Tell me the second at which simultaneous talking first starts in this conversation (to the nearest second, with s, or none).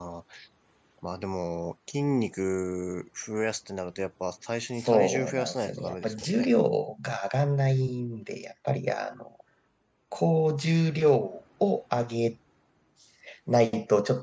5 s